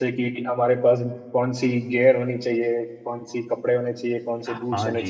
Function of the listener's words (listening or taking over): taking over